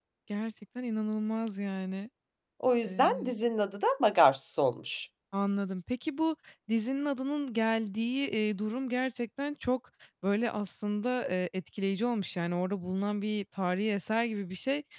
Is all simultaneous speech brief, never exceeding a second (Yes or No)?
Yes